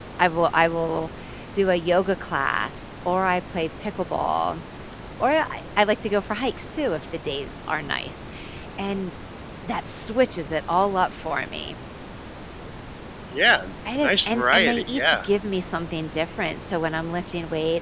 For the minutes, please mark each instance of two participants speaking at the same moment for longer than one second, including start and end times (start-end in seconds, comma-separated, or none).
14.0-15.3